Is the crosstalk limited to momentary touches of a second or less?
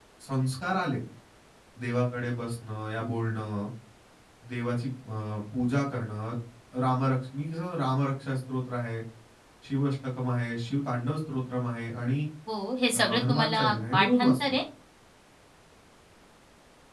No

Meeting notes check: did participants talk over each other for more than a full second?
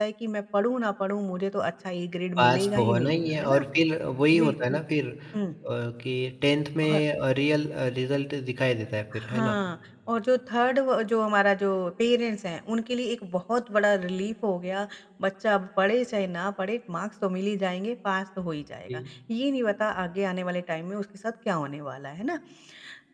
Yes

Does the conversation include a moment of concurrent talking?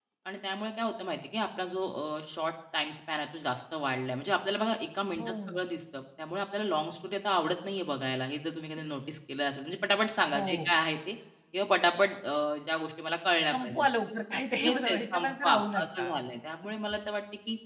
Yes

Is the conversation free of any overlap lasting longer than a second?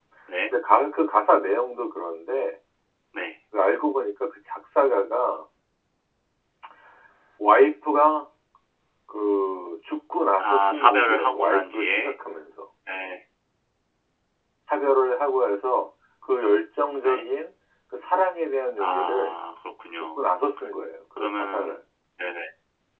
No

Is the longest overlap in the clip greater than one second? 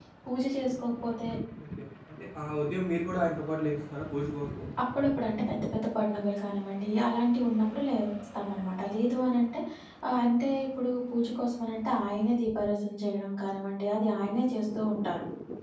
No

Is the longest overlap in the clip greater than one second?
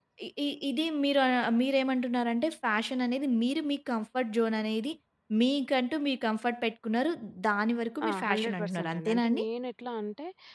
Yes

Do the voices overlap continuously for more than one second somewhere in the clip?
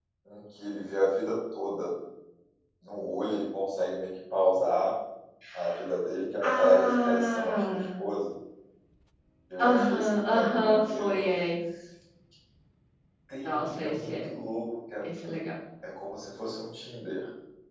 Yes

